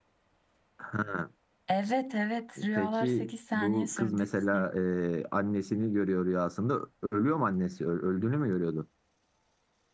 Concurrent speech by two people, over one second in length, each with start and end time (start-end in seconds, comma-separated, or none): 2.8-4.2